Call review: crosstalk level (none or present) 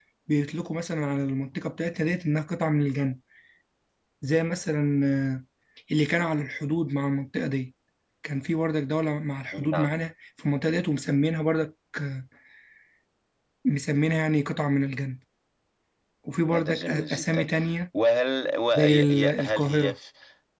present